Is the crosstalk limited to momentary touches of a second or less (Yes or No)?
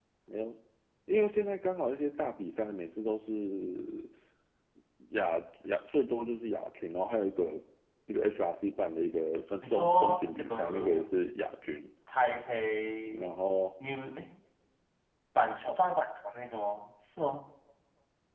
No